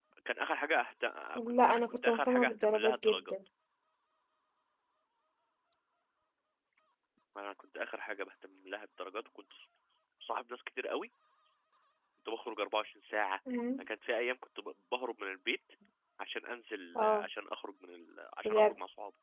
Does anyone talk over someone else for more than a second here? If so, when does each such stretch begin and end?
1.5-3.2

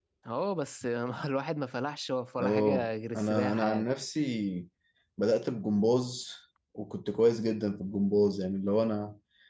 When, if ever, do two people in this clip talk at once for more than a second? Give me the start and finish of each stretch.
2.4-3.9

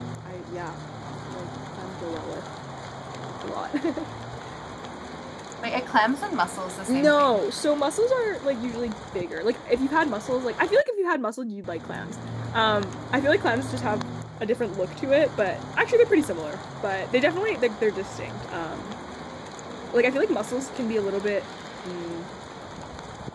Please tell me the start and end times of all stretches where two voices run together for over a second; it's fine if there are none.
none

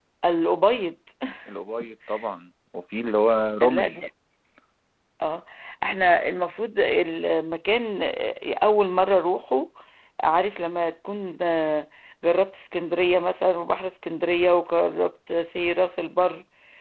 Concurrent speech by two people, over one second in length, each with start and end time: none

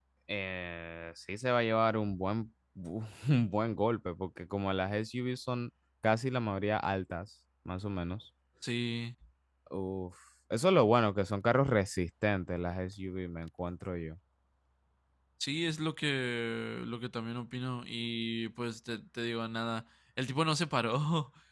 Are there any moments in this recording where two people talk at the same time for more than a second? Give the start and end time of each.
none

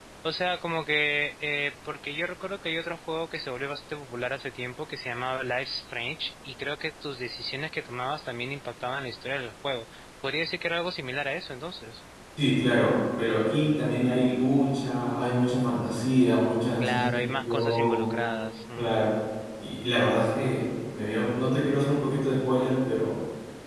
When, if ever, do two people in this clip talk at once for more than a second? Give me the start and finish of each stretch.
16.8-18.1

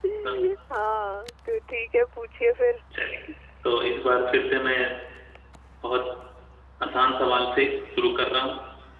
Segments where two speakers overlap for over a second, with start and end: none

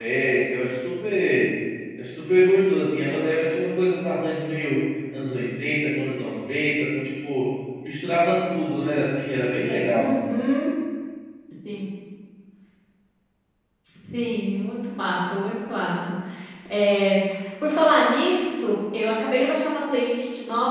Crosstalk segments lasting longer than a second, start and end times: none

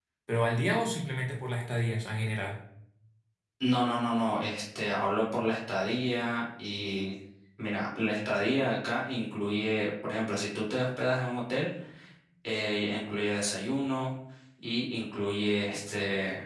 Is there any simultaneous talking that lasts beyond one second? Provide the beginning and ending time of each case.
none

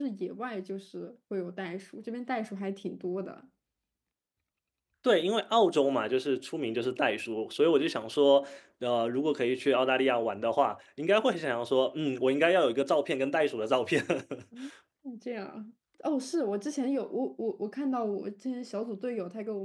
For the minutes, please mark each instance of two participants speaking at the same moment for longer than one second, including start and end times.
none

